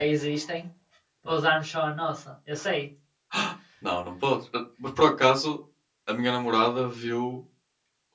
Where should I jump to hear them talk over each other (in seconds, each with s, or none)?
none